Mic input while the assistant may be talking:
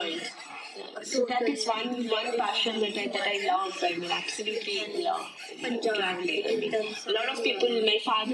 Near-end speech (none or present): none